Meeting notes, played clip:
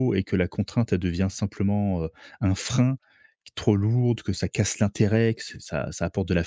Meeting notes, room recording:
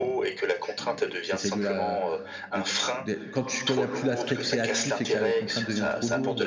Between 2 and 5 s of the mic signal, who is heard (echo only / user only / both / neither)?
both